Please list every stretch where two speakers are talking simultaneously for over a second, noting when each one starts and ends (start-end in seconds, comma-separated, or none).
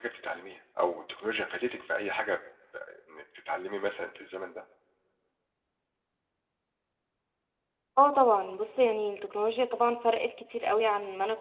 none